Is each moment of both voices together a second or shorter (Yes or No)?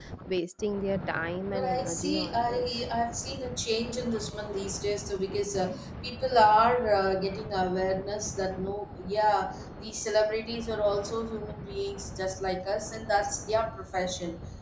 No